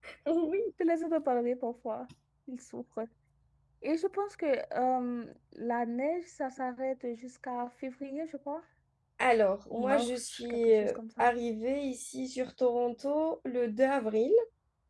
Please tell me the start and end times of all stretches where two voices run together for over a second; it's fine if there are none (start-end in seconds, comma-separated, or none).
9.7-11.2